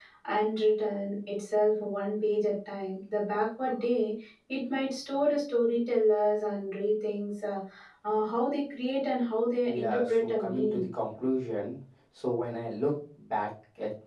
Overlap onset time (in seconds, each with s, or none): 9.6 s